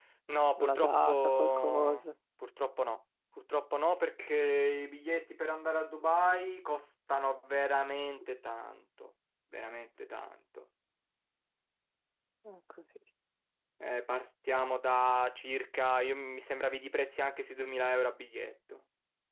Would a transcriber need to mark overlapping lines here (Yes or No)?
Yes